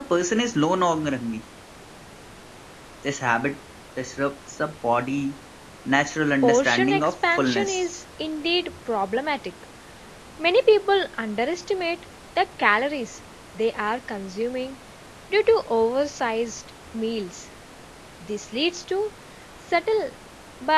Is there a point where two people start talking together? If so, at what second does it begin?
6.4 s

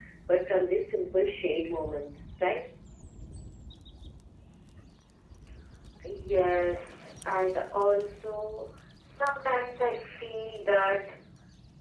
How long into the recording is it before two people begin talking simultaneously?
none

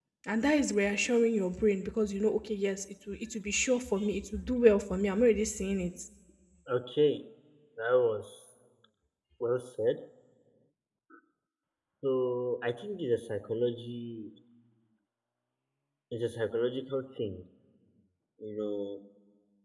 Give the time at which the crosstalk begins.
none

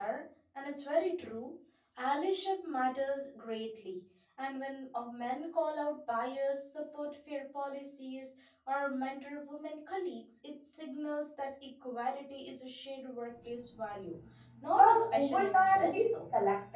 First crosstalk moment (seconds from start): 14.8 s

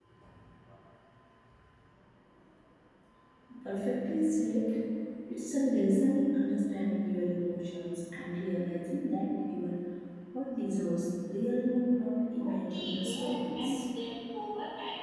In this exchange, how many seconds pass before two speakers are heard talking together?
12.4 s

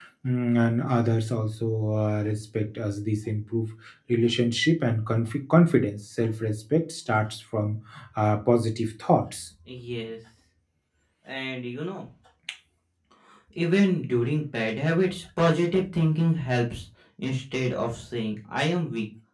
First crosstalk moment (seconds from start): none

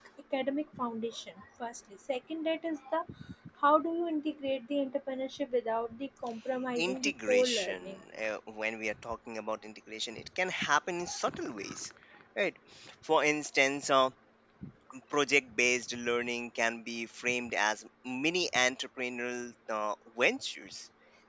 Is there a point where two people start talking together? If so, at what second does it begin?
6.8 s

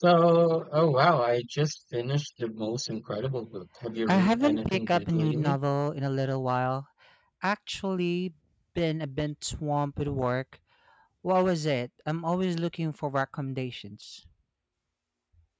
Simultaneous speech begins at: 4.1 s

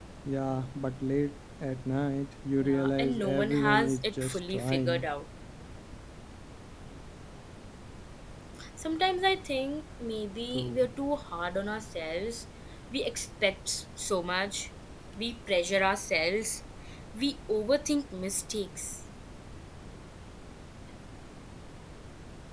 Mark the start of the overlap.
2.6 s

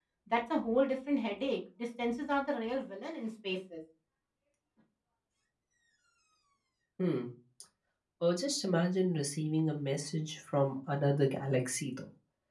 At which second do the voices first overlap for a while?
none

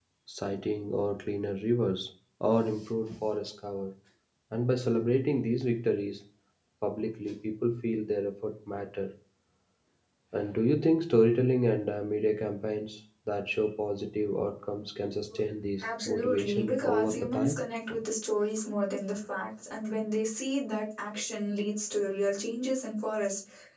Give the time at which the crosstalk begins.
15.8 s

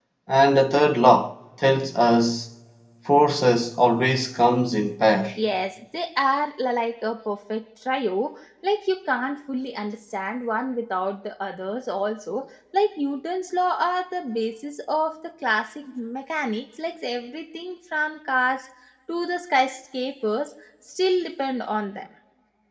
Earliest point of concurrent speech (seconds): none

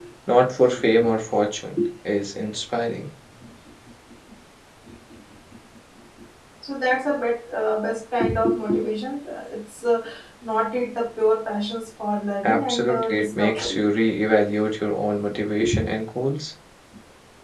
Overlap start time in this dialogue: 12.4 s

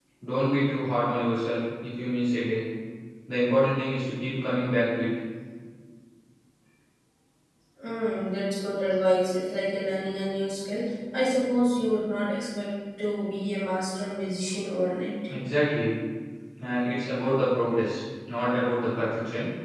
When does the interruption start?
none

